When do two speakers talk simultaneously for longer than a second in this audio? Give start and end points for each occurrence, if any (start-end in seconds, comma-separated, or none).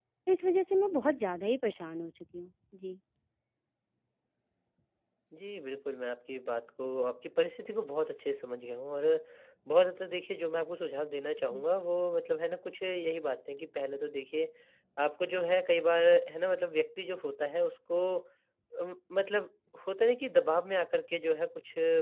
none